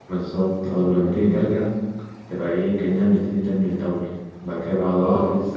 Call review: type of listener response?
listening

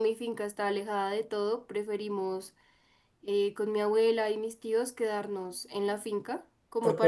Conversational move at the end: listening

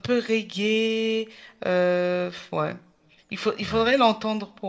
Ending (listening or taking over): listening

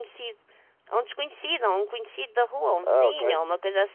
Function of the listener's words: listening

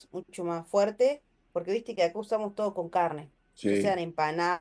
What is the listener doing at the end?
listening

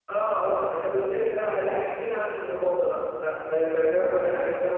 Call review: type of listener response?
taking over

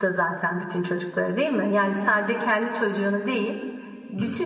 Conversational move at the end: listening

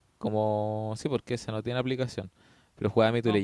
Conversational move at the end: listening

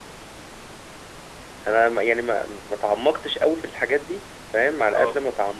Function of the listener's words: listening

